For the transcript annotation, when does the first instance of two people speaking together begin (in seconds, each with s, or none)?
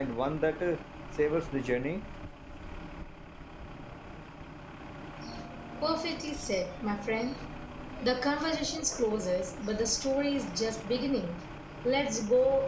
none